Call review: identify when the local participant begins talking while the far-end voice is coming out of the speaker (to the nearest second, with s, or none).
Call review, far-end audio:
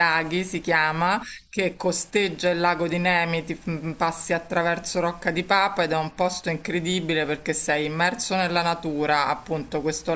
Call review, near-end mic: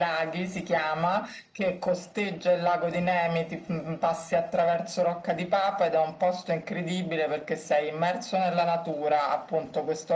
none